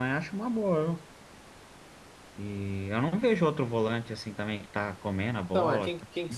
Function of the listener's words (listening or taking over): taking over